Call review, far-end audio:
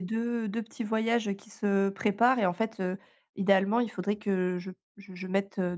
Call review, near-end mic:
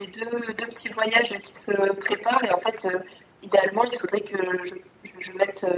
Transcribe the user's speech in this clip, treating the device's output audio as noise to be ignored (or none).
none